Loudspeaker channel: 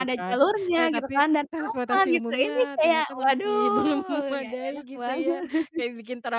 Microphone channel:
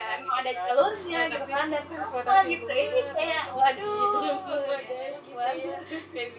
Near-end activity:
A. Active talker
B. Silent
B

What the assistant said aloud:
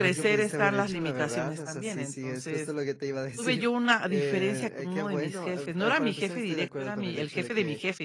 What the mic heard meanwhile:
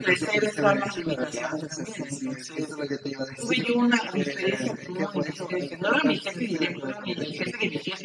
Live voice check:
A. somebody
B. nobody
B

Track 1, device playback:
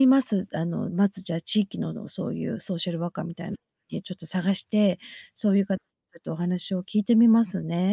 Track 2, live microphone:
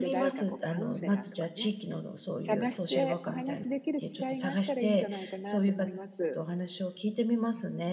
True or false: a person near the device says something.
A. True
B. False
A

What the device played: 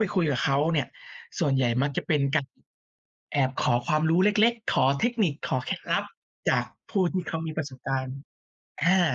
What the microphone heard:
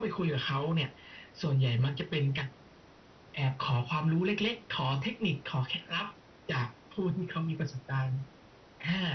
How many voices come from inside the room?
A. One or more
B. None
B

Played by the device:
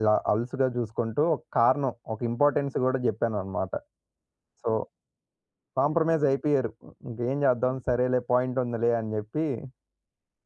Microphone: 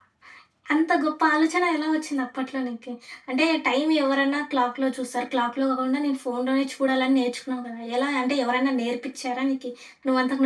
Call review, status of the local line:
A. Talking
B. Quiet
A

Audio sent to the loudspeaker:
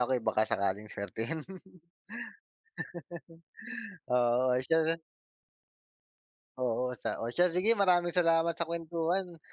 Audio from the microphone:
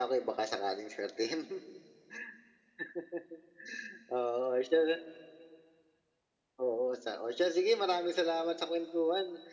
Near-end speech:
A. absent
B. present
A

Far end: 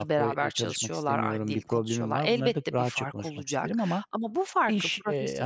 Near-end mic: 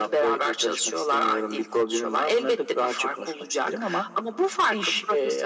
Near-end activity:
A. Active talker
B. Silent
B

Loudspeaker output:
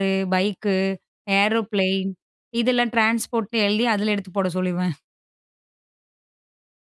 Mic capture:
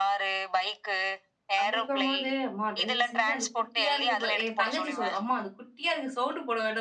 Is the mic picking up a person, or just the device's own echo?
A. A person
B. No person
A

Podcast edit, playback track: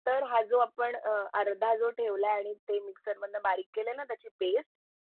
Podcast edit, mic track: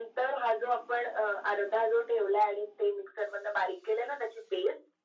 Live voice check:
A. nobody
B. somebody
A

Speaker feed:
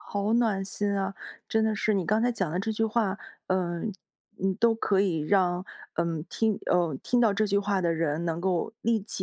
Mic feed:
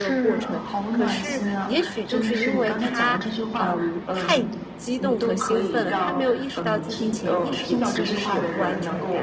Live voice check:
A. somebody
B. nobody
A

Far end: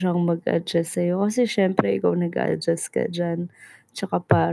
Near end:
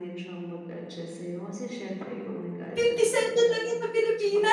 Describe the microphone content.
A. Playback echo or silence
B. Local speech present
B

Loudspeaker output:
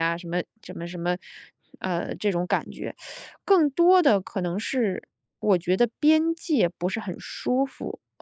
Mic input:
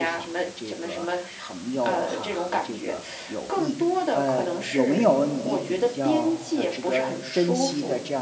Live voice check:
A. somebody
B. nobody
A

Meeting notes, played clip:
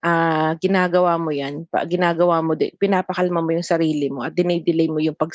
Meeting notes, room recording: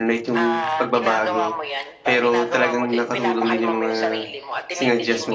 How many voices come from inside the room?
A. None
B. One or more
B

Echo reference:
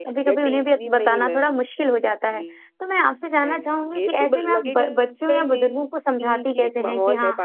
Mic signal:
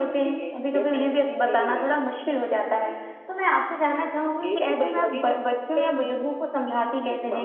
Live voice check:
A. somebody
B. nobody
B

